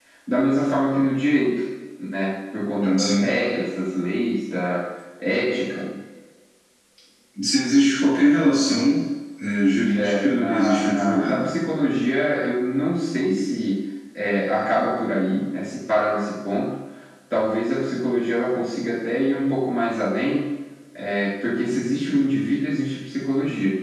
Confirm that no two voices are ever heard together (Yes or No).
No